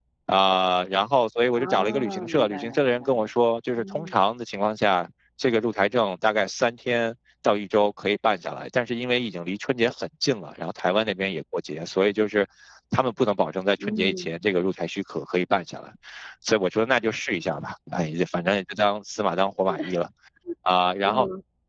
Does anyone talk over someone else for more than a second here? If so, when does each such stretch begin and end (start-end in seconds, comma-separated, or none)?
1.5-3.3